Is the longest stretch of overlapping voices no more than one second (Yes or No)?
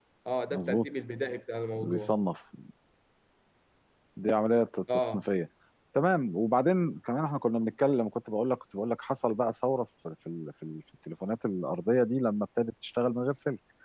Yes